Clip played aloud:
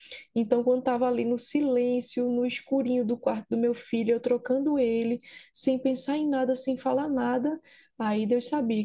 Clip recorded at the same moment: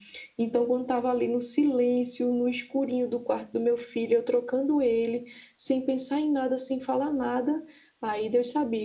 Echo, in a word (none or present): present